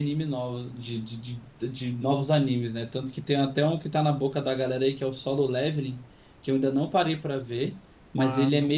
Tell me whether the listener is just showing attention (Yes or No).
Yes